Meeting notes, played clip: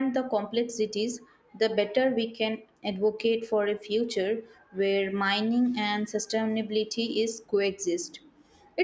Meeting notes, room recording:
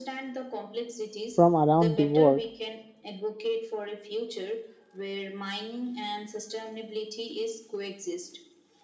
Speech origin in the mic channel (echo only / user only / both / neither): both